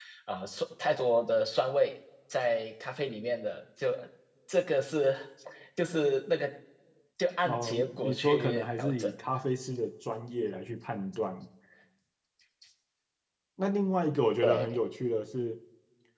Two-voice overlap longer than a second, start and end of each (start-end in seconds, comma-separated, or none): 7.4-9.1